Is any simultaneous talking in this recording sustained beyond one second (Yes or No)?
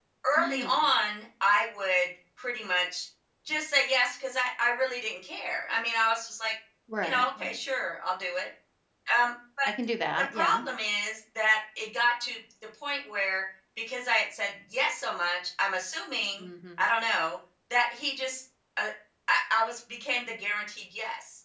No